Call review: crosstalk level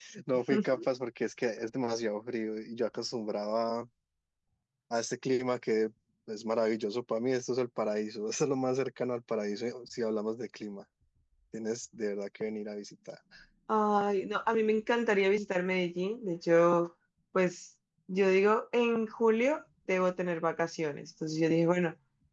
none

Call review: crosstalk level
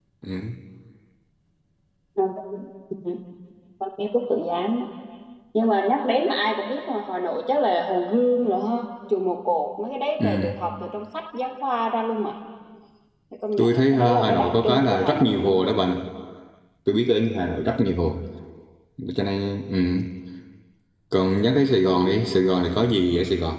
present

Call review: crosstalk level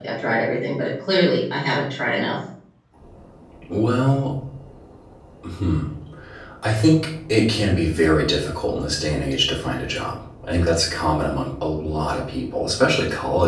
none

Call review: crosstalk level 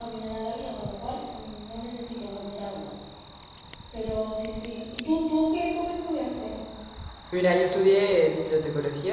none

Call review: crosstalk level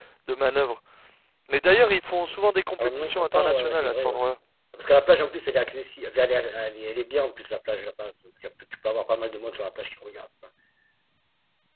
present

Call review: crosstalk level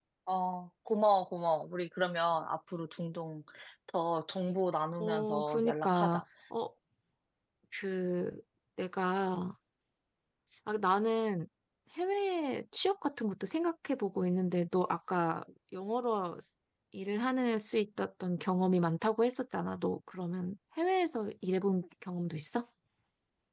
present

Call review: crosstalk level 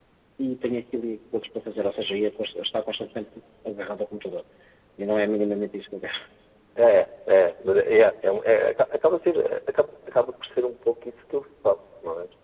none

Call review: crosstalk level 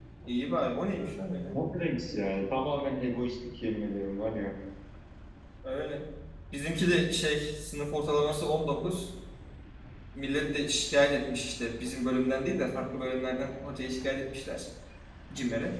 none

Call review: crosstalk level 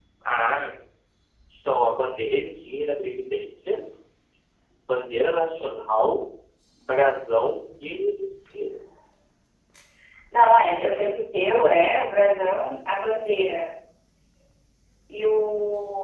none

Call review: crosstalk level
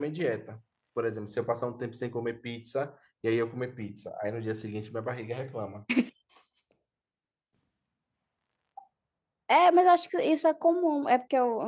none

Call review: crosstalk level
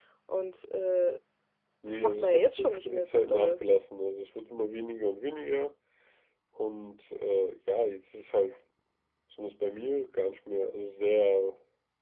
present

